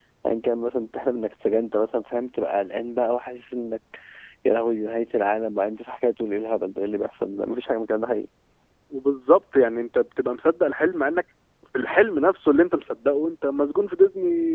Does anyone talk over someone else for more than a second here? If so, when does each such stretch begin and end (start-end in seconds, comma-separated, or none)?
none